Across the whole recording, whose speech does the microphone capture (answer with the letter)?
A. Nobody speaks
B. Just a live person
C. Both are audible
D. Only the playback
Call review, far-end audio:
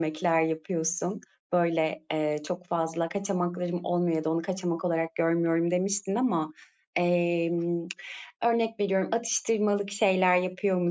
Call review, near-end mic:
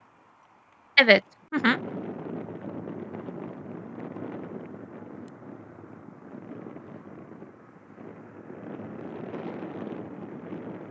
B